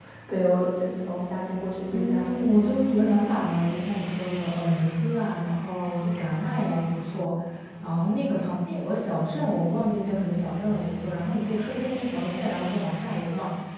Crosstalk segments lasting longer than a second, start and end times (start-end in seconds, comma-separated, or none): none